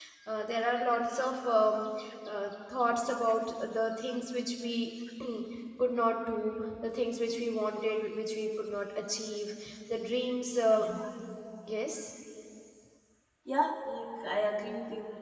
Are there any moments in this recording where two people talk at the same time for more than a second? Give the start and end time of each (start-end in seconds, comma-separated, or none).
none